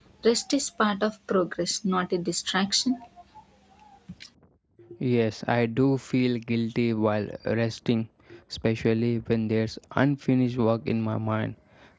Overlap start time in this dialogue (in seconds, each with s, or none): none